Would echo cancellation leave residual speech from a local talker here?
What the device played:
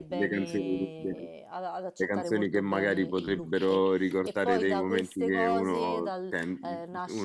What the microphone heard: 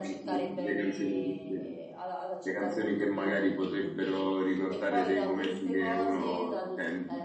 No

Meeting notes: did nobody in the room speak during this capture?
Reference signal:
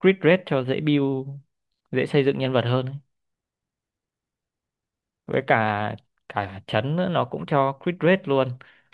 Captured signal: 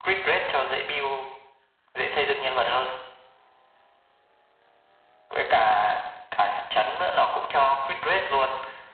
Yes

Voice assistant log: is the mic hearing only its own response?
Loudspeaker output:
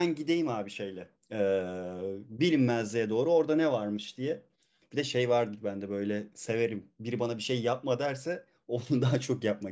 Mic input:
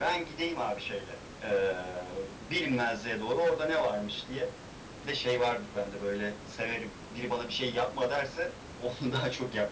Yes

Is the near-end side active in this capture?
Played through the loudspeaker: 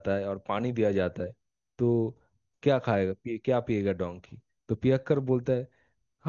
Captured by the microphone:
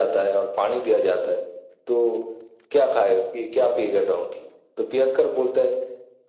No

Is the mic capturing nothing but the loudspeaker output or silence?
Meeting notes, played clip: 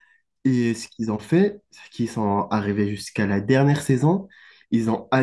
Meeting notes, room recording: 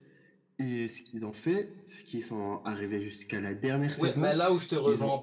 No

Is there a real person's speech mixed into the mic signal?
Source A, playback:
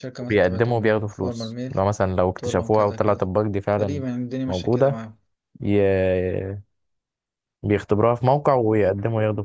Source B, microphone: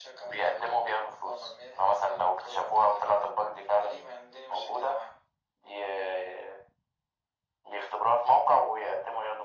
No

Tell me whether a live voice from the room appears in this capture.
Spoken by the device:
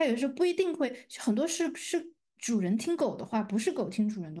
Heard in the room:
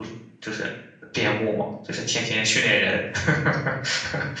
Yes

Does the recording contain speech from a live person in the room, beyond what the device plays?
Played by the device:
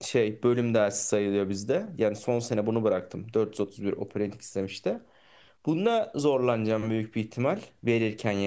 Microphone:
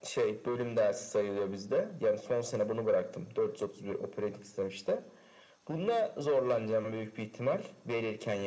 No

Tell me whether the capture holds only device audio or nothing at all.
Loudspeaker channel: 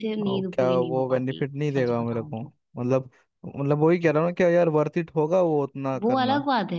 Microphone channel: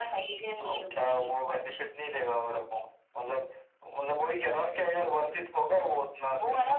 Yes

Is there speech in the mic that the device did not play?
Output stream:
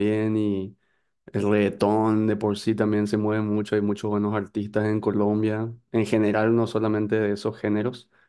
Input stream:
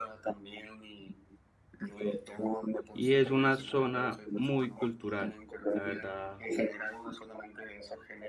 Yes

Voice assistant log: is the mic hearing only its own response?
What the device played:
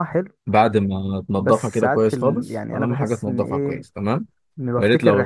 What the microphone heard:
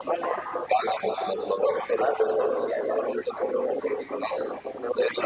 Yes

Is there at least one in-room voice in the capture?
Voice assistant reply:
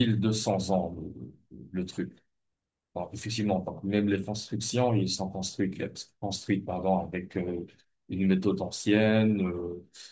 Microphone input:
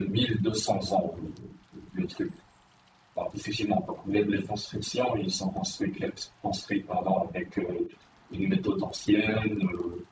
No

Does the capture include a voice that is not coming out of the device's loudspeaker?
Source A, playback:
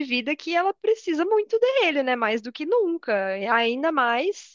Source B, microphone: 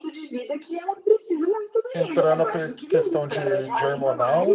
Yes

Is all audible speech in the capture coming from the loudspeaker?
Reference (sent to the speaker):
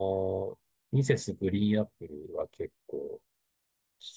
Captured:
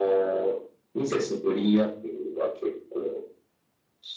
Yes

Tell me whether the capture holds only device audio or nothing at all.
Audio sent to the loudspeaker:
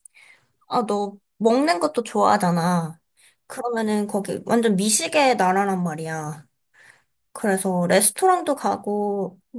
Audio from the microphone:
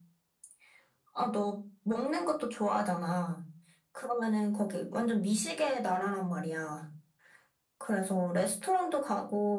Yes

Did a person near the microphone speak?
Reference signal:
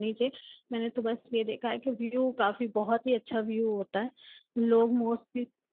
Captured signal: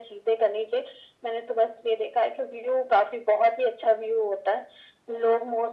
No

